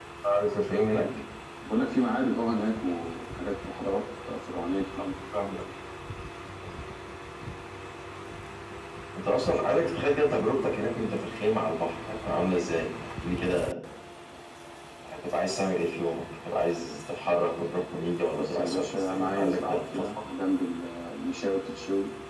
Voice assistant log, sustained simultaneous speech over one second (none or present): present